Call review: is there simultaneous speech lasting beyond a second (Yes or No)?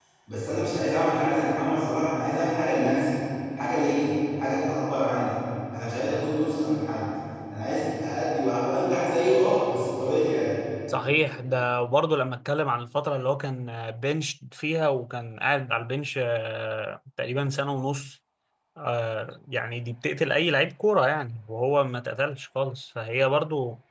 No